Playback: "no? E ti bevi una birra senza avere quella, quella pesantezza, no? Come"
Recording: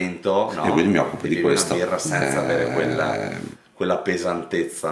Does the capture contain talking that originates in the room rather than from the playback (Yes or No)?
Yes